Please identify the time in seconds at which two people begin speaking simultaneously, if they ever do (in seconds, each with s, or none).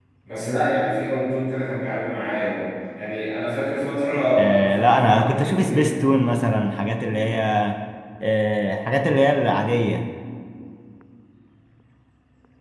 4.6 s